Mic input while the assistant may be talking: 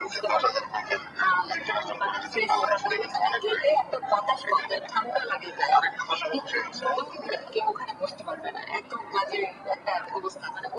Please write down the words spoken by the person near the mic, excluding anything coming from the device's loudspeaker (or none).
none